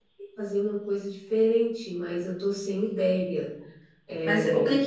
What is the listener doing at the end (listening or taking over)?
taking over